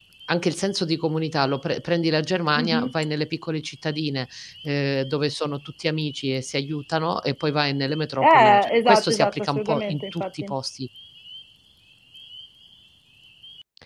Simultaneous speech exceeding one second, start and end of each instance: 8.2-10.5

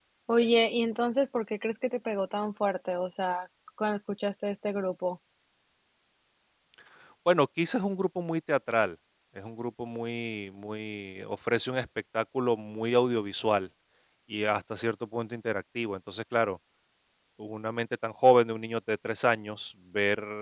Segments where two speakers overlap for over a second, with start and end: none

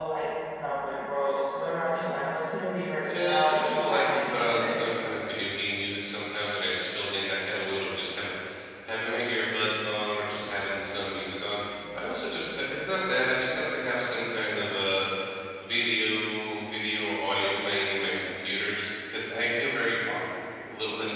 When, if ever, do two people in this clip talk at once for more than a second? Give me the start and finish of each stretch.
3.1-4.8

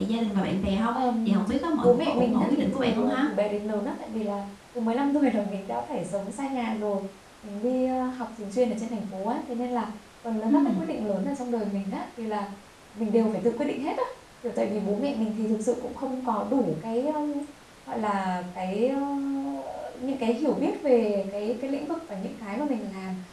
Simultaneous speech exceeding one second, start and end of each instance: 1.8-3.2

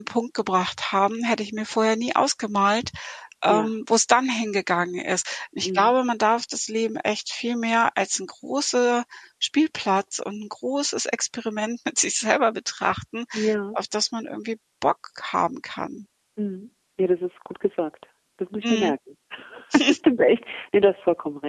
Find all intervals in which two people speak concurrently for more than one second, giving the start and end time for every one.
none

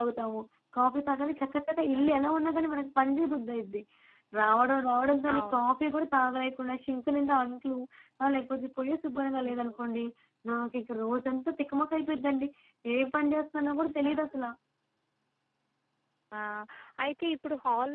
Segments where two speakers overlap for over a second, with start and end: none

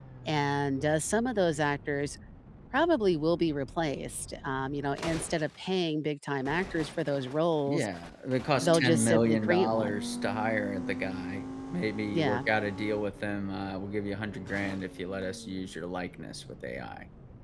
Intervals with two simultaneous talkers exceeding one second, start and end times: 8.6-9.9

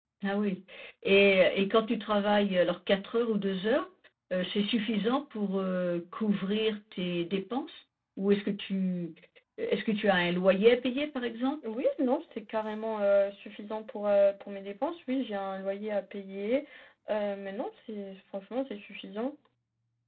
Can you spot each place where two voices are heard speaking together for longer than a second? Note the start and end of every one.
none

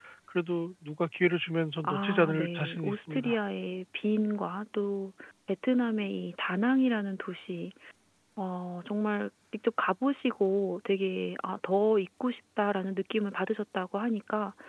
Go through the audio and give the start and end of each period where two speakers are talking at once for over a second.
1.8-3.4

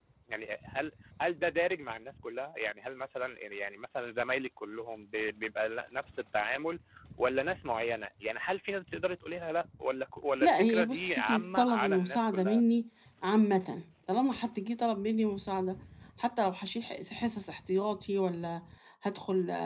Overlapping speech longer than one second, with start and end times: 10.4-12.6

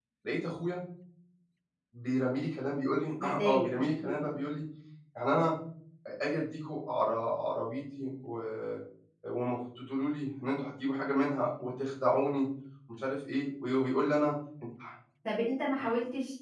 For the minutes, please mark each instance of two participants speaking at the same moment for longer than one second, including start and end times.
3.2-4.4

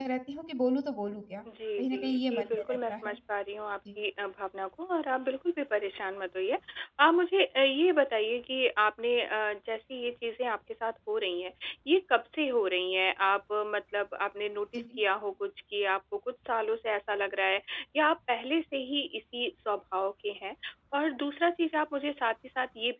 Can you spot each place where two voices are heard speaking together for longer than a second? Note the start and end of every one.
1.8-3.2

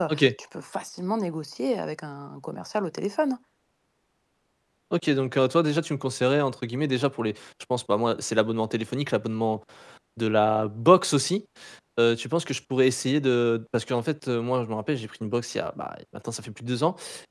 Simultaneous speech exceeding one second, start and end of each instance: none

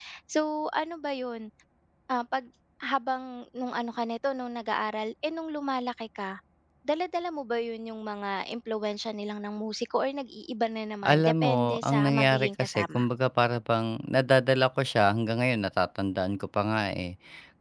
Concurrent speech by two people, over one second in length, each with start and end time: 11.1-13.0

